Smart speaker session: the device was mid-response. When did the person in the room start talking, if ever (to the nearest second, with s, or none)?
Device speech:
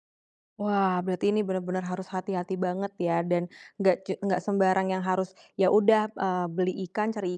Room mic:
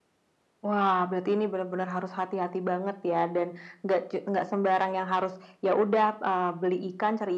none